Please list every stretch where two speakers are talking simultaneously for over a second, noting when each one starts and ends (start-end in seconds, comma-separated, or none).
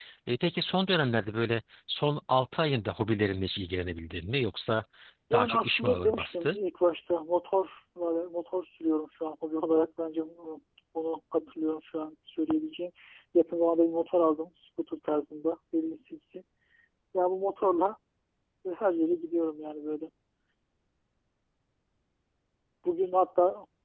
5.3-6.5